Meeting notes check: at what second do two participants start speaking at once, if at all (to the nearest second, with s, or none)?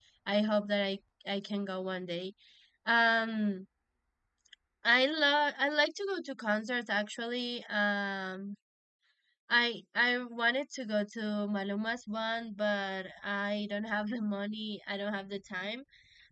none